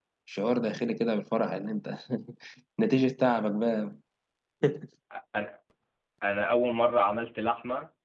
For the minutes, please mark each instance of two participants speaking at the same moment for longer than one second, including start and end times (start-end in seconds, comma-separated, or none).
none